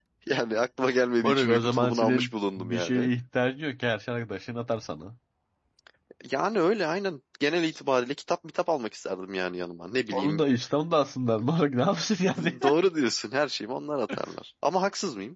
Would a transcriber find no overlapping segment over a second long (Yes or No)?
No